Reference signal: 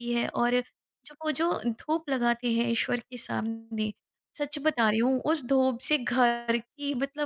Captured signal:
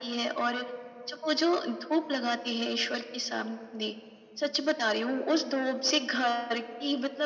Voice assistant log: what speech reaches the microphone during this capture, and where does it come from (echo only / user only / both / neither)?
echo only